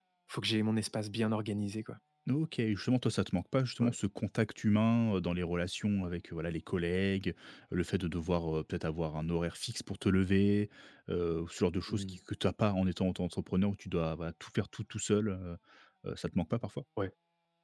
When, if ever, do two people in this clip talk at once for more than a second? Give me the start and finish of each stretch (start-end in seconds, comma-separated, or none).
none